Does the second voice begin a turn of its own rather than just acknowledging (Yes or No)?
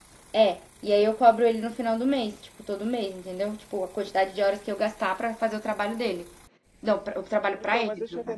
Yes